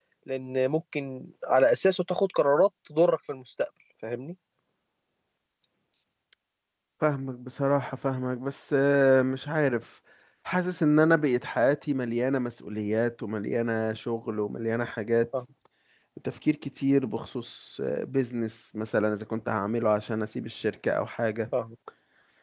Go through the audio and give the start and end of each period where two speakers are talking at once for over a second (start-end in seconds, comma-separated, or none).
none